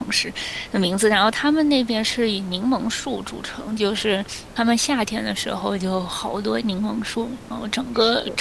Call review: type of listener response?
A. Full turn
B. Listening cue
B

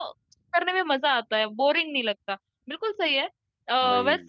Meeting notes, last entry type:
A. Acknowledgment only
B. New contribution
A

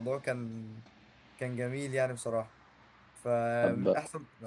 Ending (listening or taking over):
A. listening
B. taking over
A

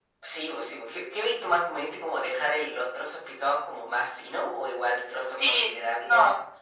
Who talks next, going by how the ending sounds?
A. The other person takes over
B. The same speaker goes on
A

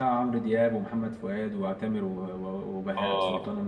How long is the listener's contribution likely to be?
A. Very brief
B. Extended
B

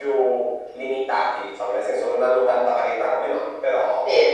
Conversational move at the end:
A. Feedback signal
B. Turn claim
B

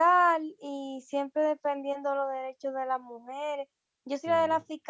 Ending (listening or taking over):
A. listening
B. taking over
A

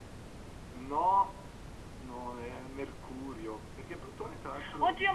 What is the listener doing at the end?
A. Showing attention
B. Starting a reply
B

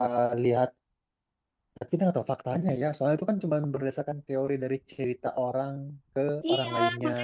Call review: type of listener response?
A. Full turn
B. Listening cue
A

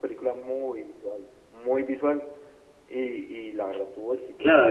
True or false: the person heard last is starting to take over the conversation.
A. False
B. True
B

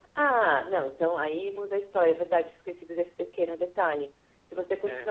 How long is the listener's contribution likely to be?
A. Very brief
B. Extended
A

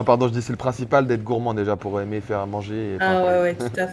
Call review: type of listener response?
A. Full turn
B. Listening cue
A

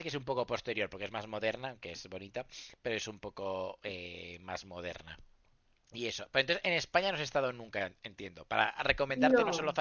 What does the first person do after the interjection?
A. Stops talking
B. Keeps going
B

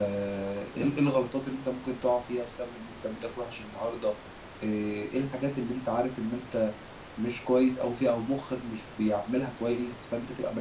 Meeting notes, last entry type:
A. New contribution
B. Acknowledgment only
B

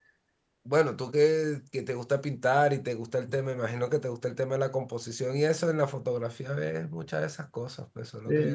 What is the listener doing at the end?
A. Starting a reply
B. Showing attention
A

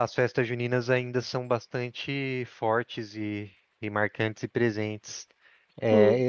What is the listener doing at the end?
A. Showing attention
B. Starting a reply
B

